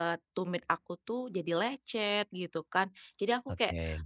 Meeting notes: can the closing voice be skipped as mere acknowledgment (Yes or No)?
Yes